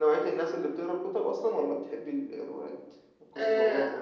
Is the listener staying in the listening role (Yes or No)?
No